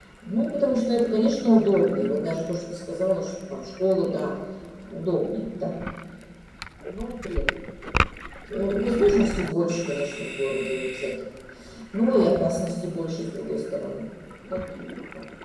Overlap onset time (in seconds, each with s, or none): none